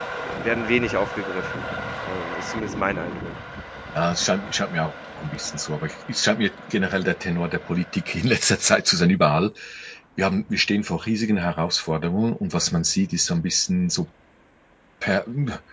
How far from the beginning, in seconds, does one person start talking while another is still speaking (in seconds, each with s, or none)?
none